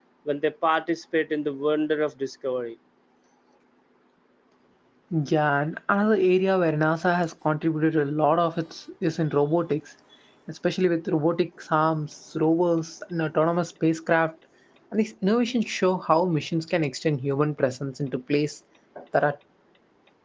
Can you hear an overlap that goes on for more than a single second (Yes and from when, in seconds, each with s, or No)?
No